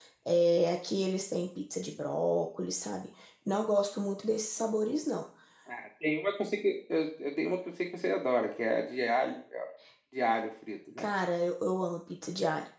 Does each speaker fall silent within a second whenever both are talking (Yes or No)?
Yes